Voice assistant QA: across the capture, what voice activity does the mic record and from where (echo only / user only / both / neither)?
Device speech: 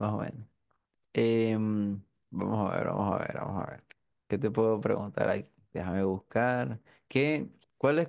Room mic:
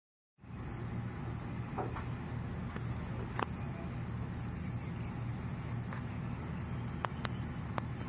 neither